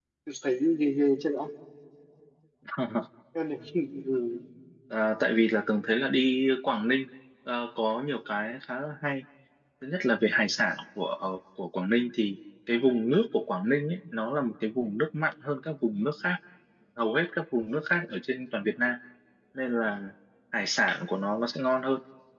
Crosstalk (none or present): none